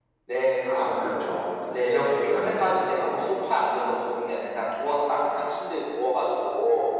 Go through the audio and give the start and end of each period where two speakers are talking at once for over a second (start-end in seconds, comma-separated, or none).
1.7-3.2